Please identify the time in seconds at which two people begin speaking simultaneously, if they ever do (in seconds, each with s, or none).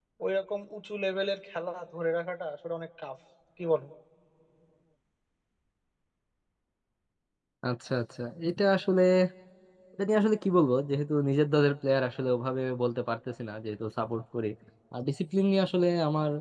none